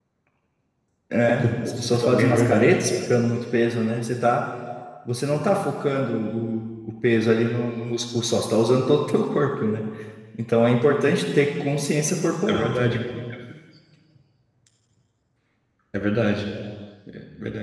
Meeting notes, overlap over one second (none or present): present